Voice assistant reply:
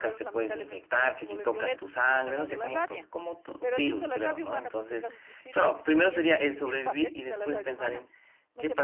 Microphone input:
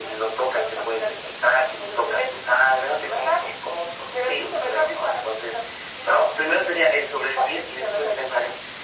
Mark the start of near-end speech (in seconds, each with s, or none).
none